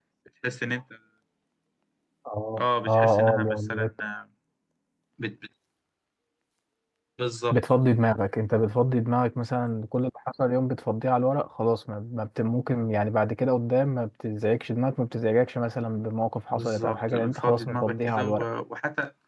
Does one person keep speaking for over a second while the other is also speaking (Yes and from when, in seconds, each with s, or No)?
Yes, from 2.6 s